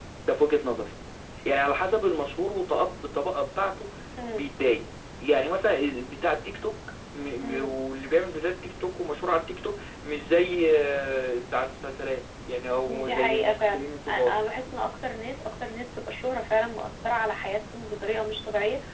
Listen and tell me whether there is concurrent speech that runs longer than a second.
Yes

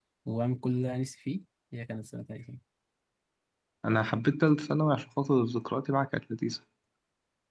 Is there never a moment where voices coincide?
Yes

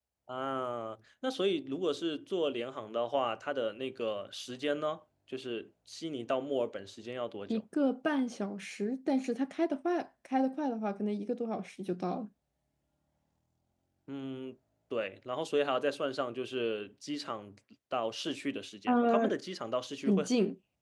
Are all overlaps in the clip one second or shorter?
Yes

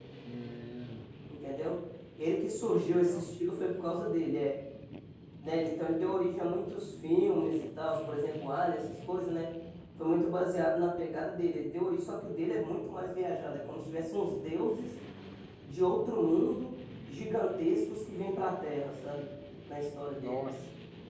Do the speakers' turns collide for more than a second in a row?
No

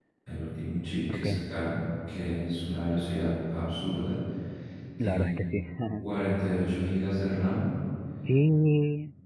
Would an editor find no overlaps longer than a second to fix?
Yes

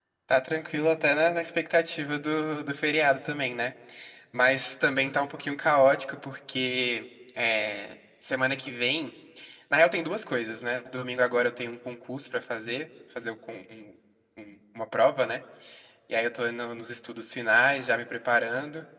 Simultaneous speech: No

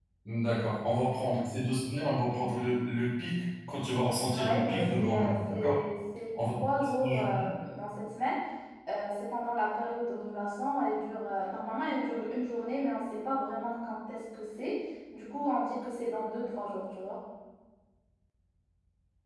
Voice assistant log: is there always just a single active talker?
No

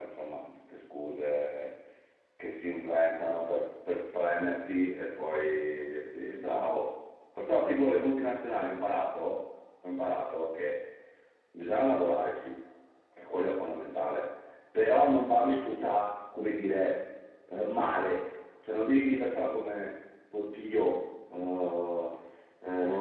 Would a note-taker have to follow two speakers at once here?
No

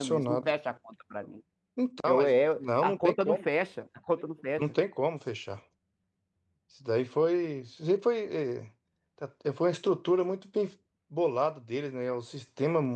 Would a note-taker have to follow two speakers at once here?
Yes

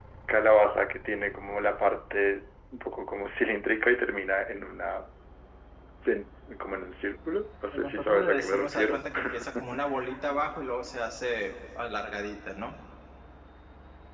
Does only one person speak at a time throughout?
No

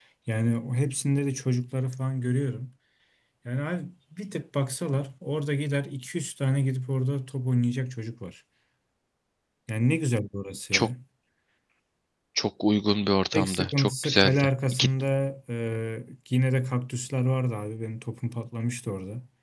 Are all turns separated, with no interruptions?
No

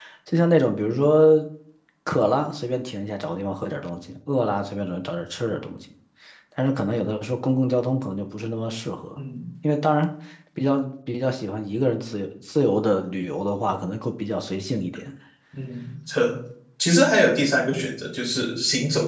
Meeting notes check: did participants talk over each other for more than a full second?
No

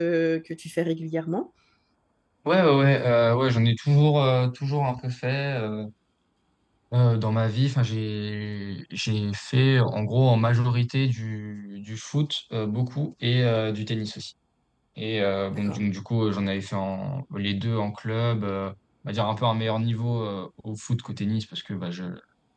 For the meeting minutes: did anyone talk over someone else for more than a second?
No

